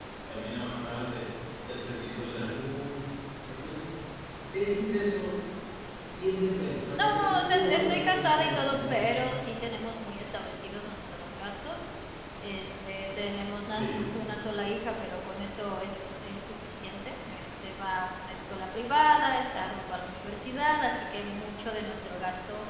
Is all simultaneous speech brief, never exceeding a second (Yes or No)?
No